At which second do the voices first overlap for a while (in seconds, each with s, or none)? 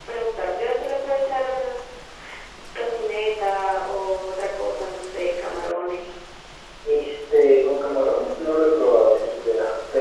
none